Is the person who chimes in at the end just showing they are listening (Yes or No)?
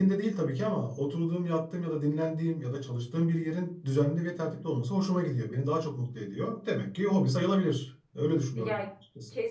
No